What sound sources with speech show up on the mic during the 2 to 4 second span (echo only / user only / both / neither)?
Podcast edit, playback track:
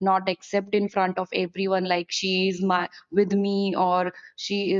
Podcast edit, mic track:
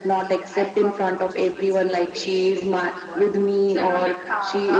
both